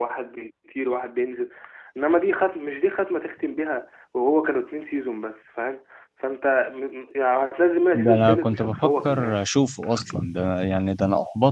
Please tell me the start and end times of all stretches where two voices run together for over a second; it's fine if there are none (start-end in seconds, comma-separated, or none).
7.9-9.3